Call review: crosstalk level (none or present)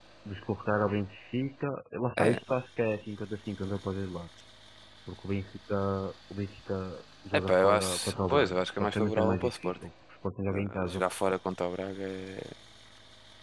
present